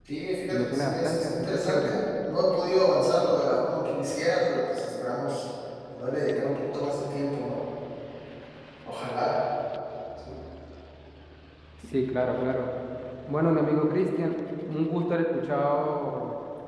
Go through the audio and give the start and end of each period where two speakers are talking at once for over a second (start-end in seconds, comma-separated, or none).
0.5-1.9